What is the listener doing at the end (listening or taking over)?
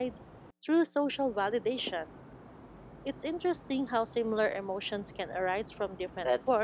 taking over